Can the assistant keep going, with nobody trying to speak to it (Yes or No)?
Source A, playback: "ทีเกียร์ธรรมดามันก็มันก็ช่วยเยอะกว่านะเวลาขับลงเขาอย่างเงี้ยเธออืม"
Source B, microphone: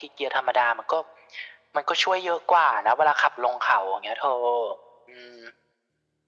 Yes